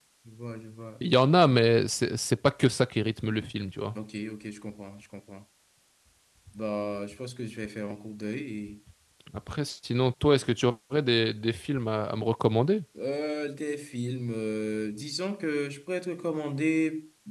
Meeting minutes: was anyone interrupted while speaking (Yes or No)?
No